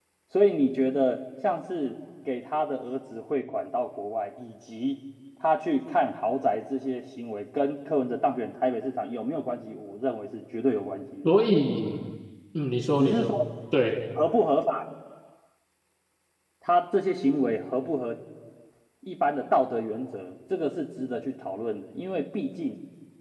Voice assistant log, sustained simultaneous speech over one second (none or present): none